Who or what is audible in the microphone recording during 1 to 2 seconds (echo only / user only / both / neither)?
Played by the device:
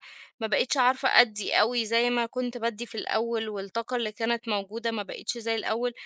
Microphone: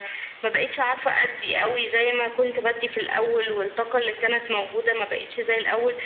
echo only